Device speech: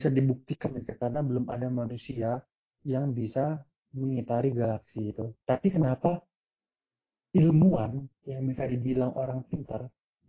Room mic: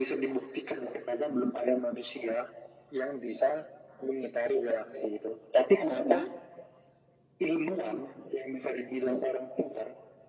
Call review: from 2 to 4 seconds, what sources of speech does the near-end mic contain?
echo only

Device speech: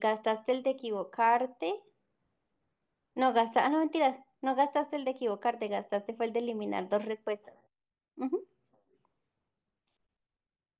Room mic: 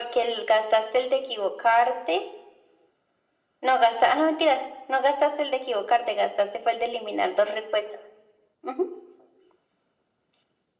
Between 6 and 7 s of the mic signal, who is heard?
echo only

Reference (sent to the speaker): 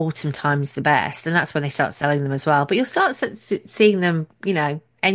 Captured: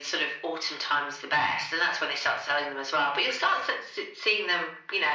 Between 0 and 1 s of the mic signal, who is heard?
echo only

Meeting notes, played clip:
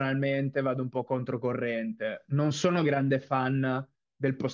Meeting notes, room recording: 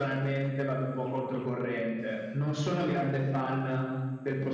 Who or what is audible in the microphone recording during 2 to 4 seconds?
echo only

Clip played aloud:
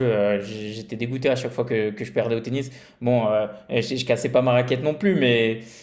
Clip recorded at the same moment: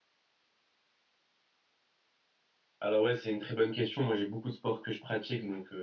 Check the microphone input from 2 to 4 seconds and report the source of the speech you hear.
user only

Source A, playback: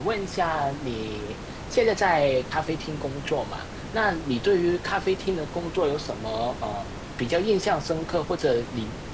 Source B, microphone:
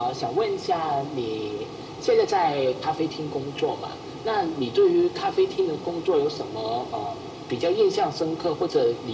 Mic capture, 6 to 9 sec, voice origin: echo only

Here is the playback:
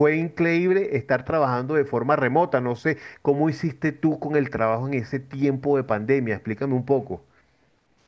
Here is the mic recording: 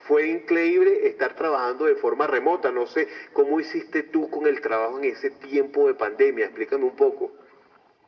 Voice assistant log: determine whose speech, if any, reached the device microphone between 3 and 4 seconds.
echo only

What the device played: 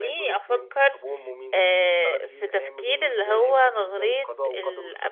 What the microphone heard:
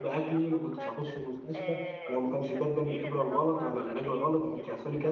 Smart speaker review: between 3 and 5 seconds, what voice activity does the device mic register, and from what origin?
both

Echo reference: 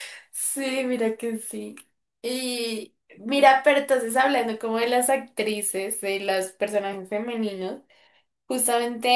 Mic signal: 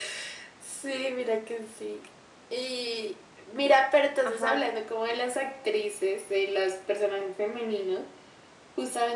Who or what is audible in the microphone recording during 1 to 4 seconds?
echo only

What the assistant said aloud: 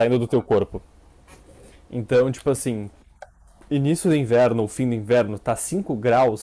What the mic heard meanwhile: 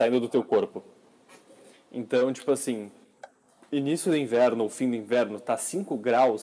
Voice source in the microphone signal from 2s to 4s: echo only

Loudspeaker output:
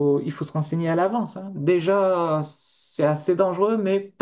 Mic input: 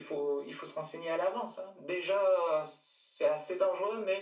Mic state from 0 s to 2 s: echo only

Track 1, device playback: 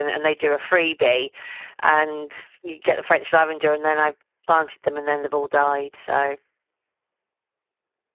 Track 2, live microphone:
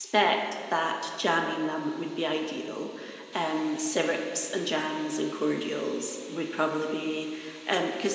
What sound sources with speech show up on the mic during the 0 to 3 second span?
user only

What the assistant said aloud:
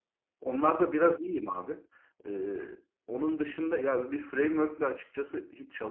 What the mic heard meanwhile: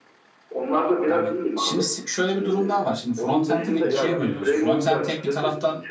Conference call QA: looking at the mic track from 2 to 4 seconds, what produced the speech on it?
both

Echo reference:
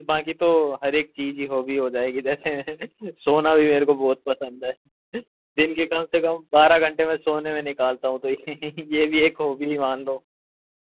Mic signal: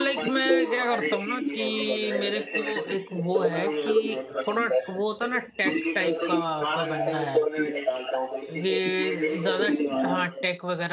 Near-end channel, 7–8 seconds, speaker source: both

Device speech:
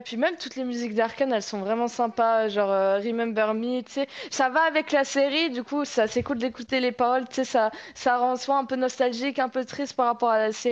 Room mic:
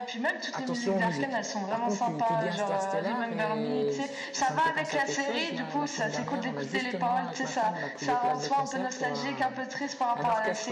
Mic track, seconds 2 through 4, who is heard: both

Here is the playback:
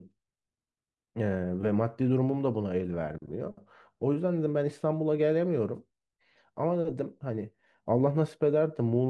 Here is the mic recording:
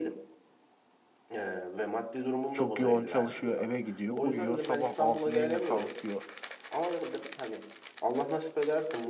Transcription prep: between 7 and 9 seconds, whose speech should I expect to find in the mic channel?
echo only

